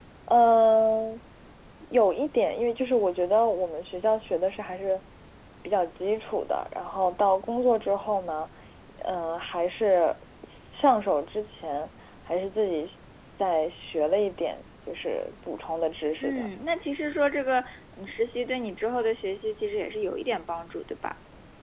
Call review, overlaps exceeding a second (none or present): none